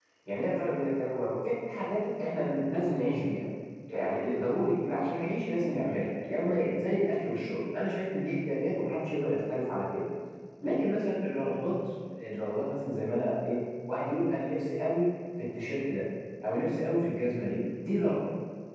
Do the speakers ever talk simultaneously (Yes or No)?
No